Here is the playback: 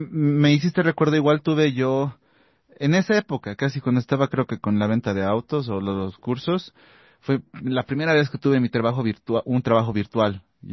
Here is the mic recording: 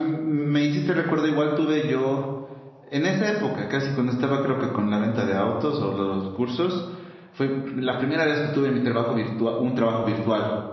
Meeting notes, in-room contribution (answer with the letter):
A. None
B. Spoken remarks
A